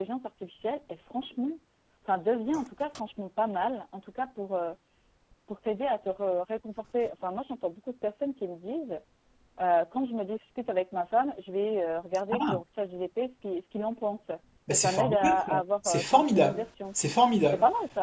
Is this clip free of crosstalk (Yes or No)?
No